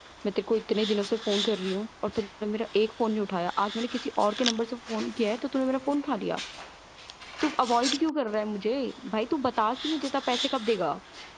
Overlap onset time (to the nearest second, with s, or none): none